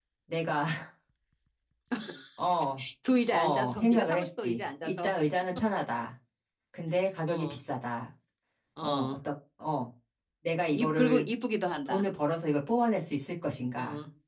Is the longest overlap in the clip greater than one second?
Yes, from 3.3 s

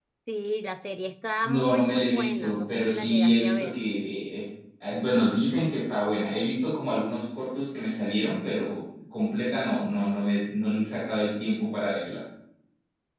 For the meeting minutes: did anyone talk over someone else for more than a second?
Yes, from 1.4 s

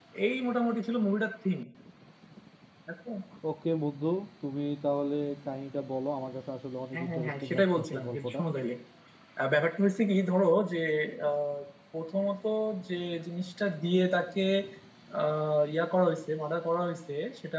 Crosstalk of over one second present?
Yes, from 6.9 s

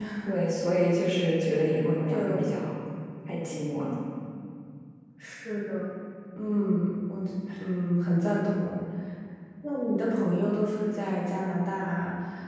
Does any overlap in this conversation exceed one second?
No

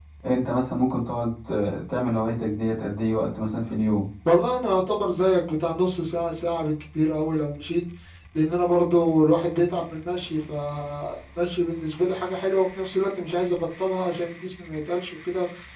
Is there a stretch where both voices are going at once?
No

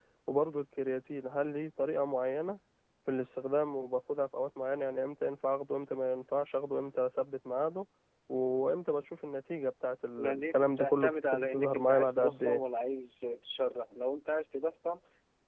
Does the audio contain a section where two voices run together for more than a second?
Yes, from 10.2 s

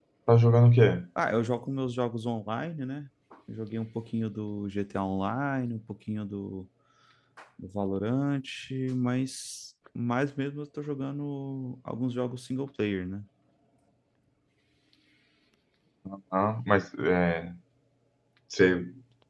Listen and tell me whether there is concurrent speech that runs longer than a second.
No

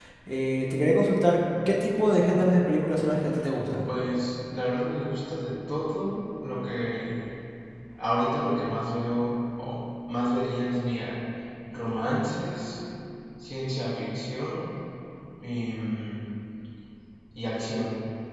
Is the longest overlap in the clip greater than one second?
No

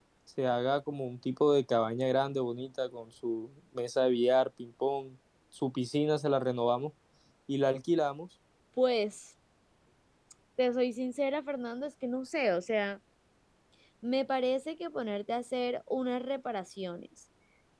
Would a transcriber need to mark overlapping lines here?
No

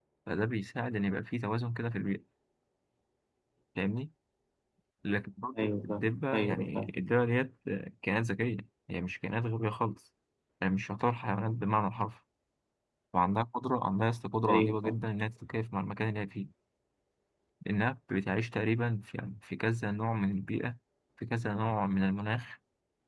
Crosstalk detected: Yes, from 5.6 s

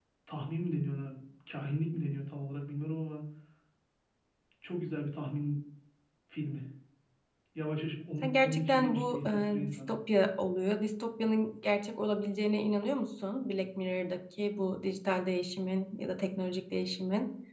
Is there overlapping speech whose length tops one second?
Yes, from 8.2 s

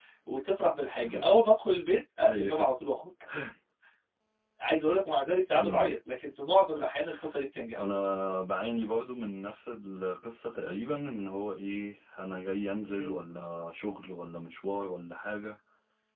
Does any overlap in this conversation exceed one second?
No

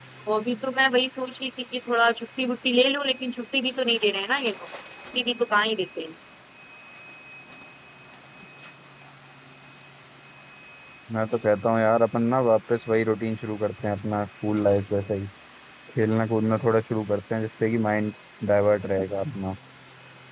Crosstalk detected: No

